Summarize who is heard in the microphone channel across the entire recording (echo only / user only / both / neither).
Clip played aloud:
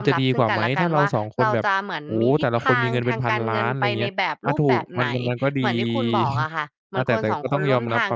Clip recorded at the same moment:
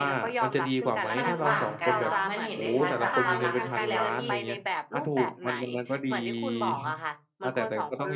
both